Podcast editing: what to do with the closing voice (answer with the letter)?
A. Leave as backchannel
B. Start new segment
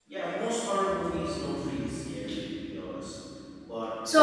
B